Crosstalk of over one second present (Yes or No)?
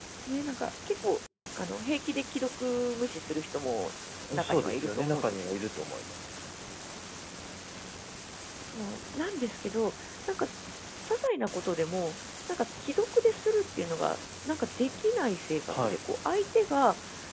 Yes